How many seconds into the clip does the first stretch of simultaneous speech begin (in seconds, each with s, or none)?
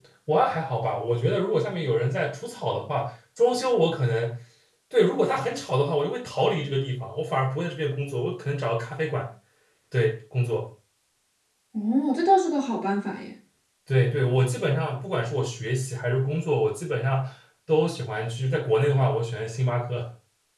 none